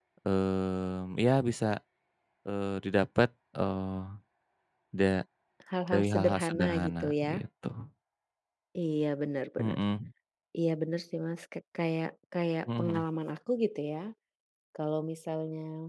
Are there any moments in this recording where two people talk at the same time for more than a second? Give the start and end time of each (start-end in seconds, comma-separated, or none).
5.9-7.4